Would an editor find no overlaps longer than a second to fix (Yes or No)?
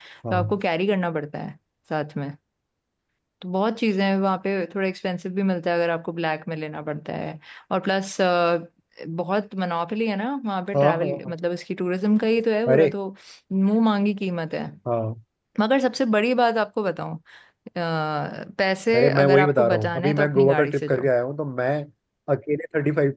No